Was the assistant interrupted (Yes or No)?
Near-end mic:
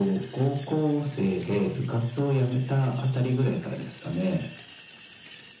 No